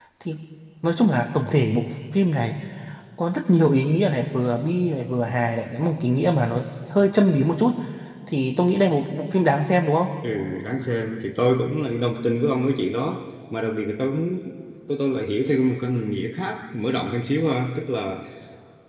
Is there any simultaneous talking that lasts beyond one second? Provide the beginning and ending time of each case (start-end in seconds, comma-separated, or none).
none